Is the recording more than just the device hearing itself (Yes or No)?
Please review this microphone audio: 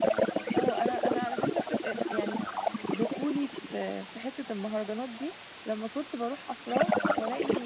Yes